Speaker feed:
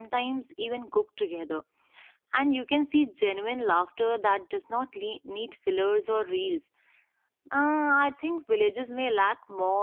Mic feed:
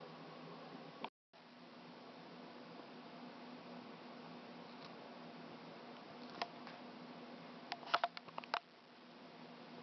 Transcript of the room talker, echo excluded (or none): none